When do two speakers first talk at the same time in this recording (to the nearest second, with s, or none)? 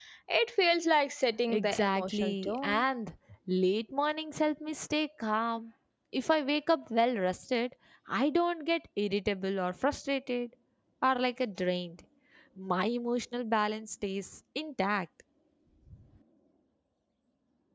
1 s